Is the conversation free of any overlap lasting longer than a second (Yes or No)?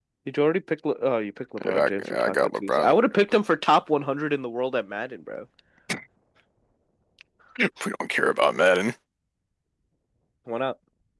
No